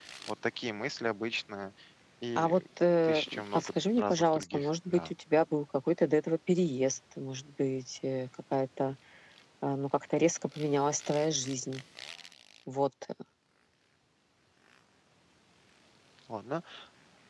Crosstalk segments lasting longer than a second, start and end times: 3.0-5.1

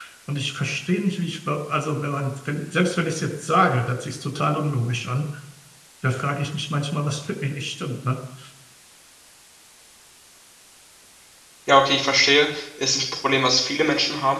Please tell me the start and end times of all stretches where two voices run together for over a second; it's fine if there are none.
none

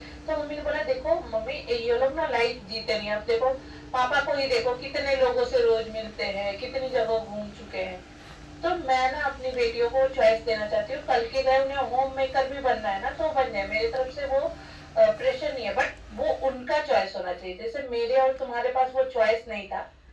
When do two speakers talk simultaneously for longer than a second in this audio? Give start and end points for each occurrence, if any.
none

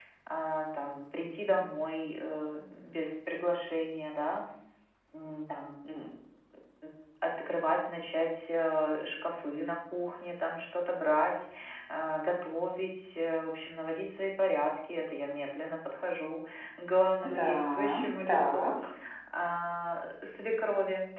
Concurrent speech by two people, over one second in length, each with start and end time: 17.4-18.7

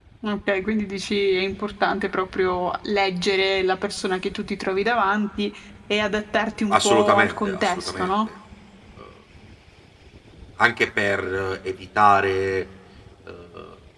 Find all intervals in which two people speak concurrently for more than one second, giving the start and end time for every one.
6.7-8.1

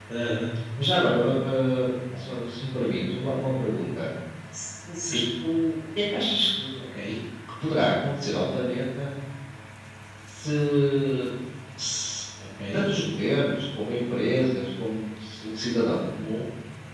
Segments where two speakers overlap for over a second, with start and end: none

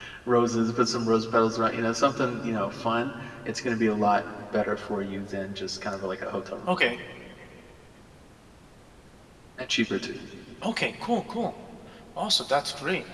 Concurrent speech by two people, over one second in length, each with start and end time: none

